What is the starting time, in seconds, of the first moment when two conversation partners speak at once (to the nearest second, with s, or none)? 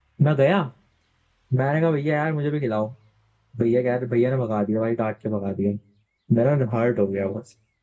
none